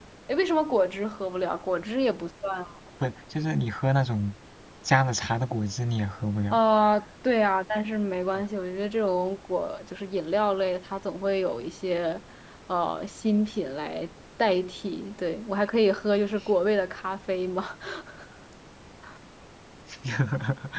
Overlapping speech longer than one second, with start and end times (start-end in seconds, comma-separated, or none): none